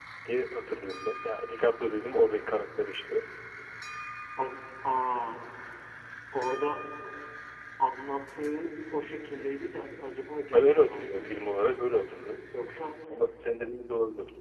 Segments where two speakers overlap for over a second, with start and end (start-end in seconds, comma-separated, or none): 10.5-11.8